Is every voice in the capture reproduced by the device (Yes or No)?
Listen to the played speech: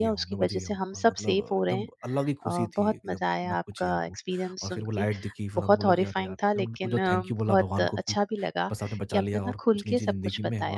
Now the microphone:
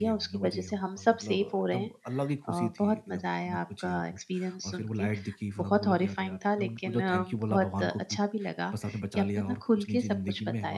Yes